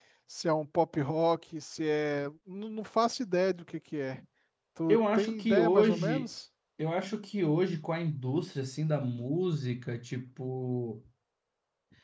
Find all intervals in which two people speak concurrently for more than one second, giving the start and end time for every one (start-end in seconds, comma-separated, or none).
4.9-6.3